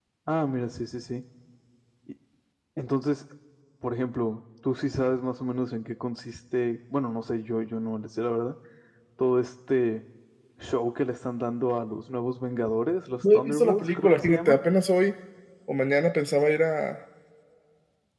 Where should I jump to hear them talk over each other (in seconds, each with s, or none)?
13.2 s